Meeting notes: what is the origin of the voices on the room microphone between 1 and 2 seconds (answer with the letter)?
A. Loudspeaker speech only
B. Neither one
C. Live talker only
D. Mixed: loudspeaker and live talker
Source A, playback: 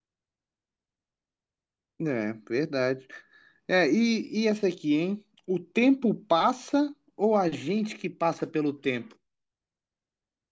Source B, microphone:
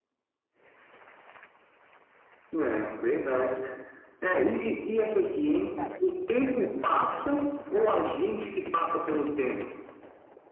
B